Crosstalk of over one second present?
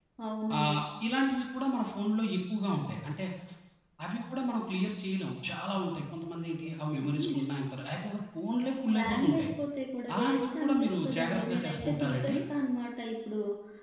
Yes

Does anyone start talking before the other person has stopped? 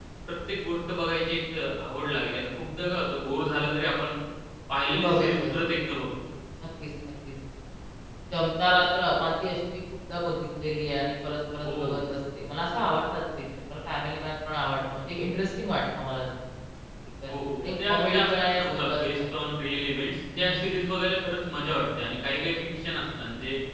Yes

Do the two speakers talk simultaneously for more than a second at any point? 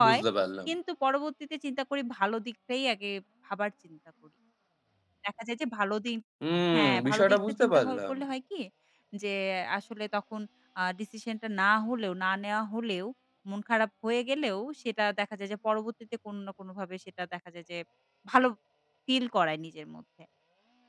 Yes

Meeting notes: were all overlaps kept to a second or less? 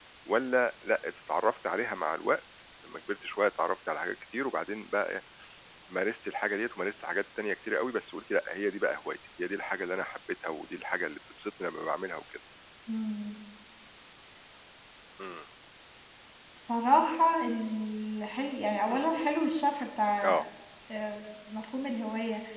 Yes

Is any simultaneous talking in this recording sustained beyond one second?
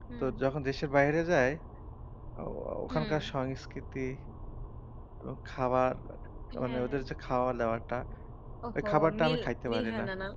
Yes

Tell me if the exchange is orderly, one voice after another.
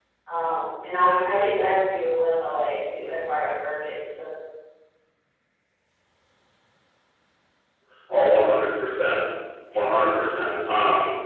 Yes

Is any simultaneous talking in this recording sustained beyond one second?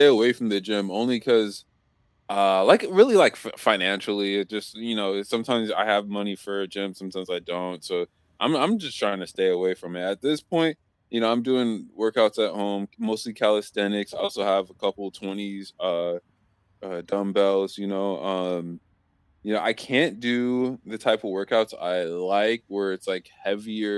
No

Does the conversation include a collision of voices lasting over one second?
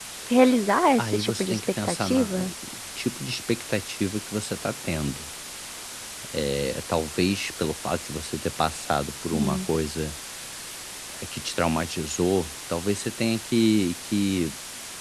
Yes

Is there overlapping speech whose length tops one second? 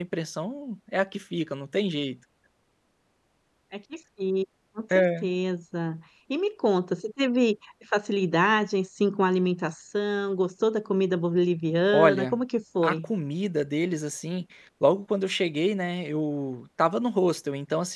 No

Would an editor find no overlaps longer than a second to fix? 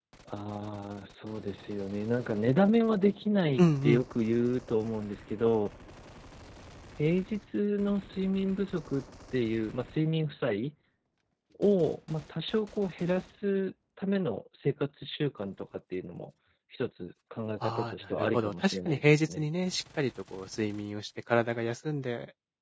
No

